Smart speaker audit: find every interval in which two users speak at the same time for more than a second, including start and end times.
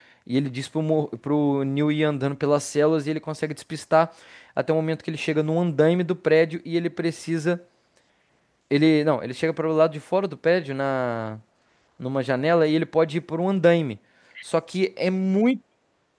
none

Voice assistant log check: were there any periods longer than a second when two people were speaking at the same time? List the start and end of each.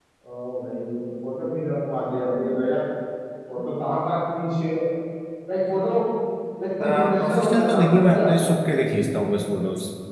6.8-8.3

